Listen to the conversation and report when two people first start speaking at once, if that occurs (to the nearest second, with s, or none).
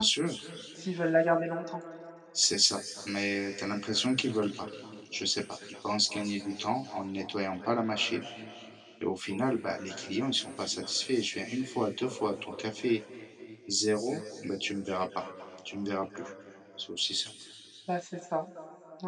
none